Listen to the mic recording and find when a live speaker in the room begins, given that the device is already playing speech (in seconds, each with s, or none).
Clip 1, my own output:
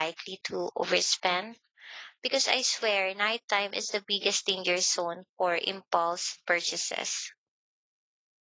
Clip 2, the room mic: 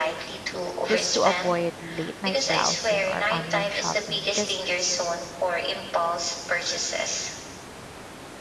0.9 s